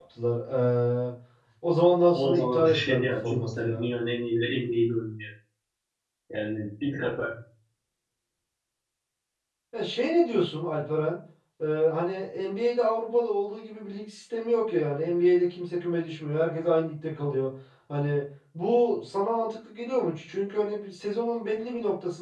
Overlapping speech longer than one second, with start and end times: 2.1-3.9

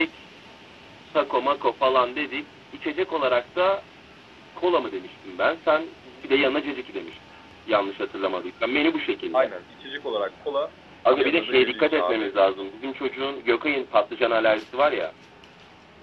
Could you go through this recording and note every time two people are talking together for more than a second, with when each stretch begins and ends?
11.1-12.3

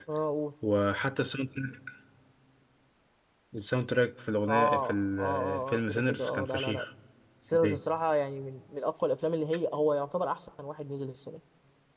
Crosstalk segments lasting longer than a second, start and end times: 4.5-6.8

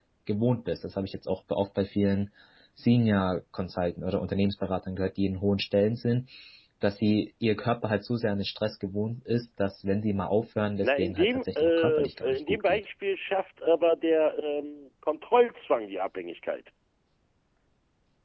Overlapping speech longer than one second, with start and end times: 10.8-12.8

